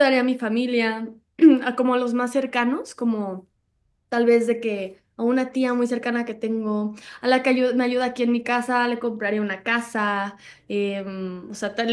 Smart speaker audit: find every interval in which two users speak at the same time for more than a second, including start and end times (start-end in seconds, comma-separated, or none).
none